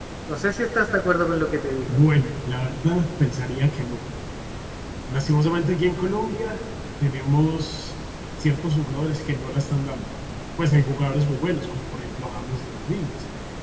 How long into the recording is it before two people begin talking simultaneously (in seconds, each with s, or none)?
none